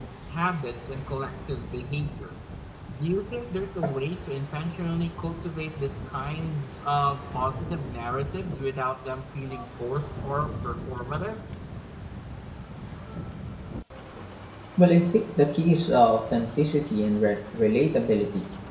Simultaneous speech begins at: none

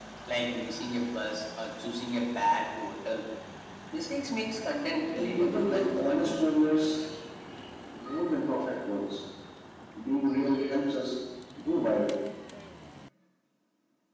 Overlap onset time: 5.1 s

